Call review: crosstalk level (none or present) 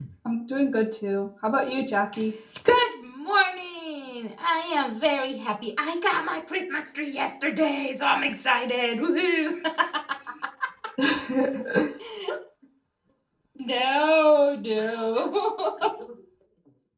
none